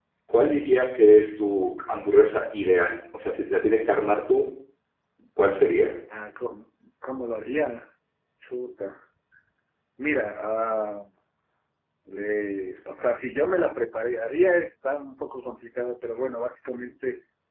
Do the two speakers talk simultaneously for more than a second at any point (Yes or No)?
No